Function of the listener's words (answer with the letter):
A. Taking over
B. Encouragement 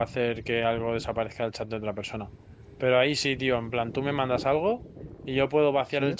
B